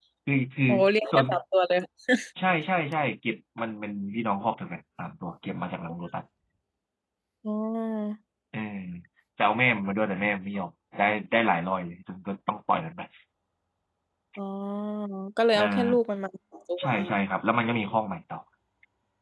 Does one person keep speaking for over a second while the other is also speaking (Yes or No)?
No